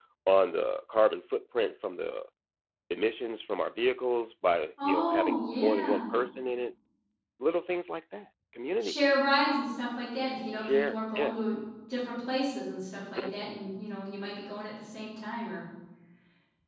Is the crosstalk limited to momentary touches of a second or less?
No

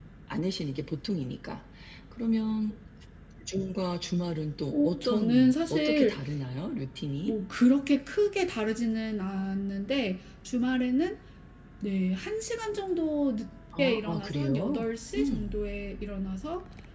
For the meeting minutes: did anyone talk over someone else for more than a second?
Yes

